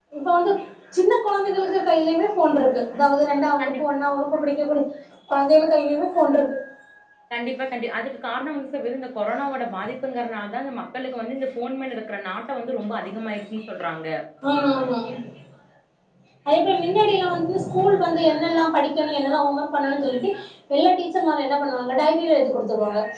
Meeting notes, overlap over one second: none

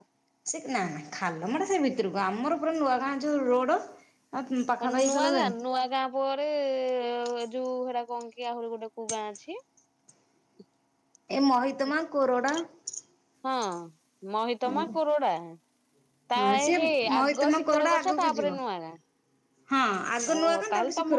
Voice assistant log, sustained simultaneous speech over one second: present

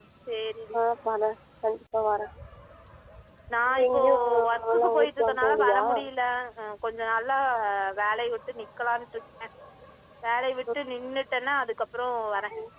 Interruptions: present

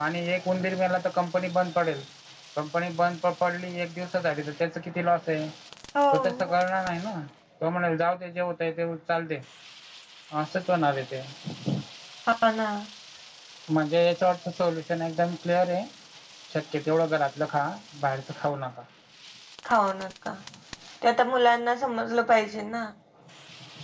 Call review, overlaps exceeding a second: none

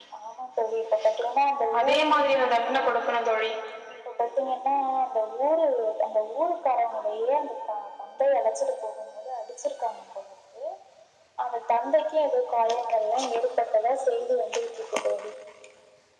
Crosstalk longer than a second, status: none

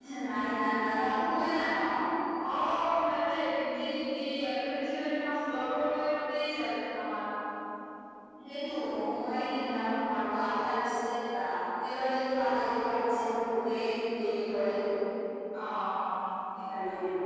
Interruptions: none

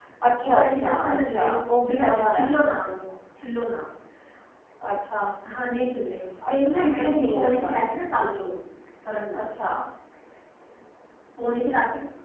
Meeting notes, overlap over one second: present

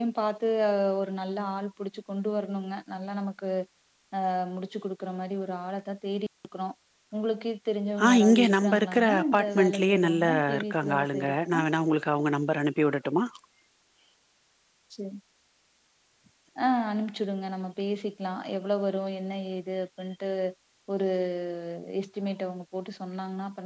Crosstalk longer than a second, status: present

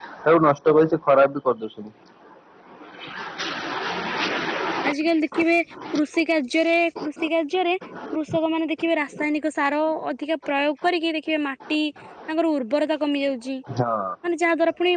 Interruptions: none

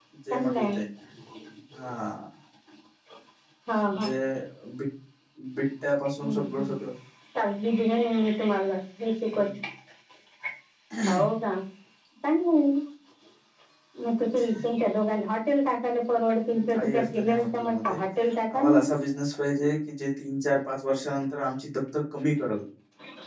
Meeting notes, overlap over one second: present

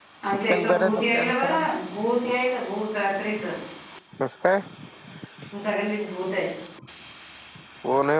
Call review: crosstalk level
present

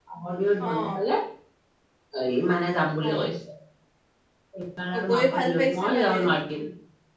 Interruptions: present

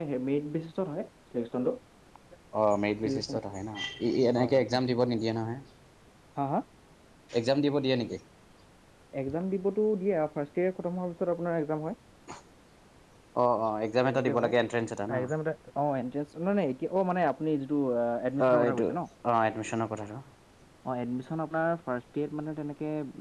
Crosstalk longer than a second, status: none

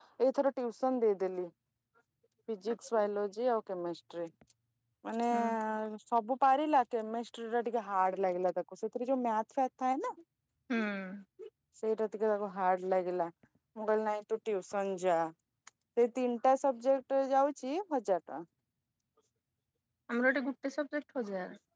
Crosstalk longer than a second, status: none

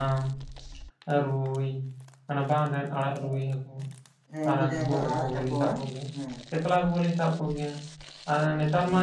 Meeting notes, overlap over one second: present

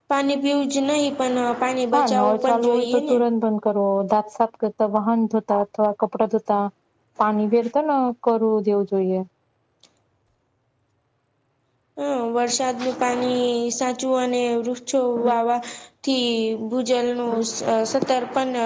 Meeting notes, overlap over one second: present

